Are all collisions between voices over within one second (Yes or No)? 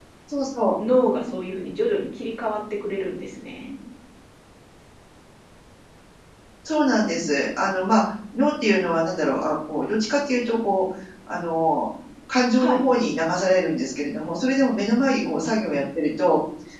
Yes